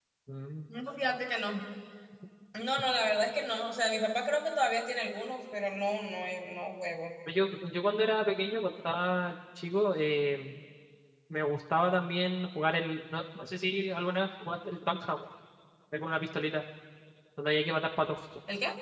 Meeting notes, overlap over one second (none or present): none